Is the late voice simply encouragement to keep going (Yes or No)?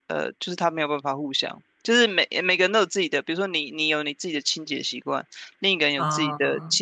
Yes